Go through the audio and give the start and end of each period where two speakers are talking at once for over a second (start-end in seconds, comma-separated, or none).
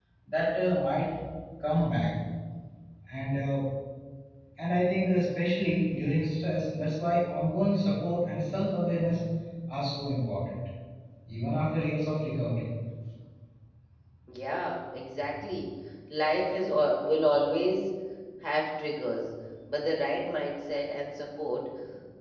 none